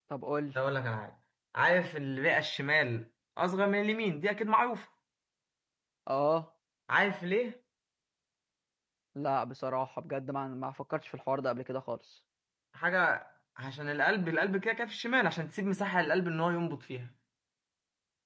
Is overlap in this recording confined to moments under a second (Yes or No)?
Yes